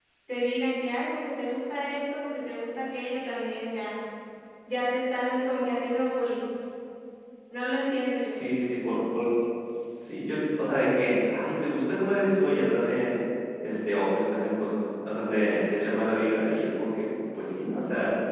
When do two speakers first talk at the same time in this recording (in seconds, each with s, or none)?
none